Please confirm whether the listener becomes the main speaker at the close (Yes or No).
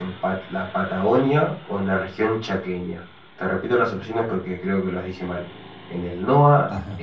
No